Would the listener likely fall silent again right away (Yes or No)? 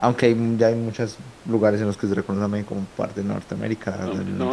No